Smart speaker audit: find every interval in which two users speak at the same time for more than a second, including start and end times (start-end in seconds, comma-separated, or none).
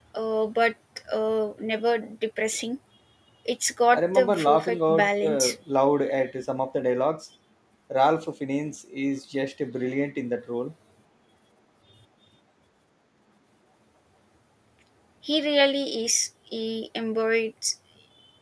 3.9-5.5